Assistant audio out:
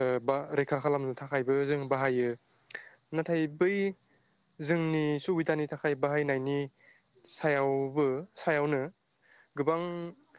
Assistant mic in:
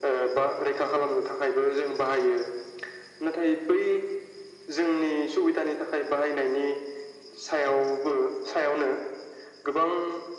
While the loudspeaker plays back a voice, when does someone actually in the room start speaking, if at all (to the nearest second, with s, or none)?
none